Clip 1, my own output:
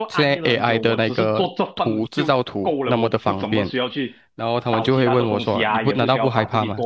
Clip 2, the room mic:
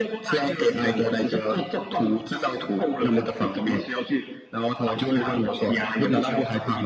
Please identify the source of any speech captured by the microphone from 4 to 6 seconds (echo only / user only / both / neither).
echo only